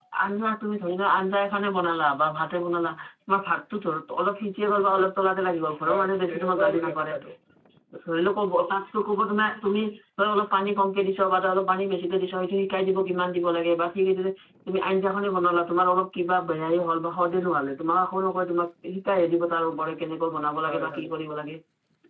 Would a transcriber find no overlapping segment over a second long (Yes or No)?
No